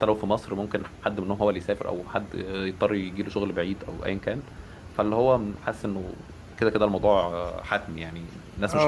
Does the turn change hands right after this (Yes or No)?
Yes